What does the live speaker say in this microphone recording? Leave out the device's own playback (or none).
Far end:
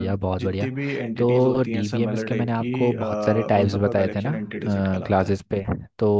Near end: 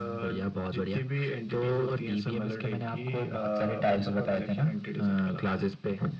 none